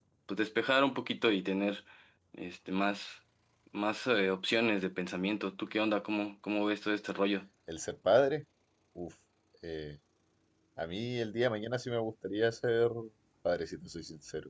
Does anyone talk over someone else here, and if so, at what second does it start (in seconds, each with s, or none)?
none